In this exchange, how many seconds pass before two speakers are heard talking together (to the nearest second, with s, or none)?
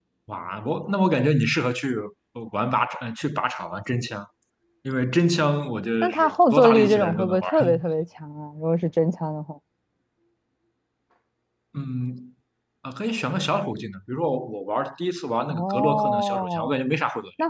6 s